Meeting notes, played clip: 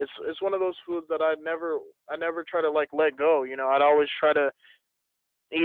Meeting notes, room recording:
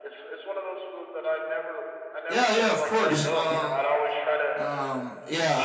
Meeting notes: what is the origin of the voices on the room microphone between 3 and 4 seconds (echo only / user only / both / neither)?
both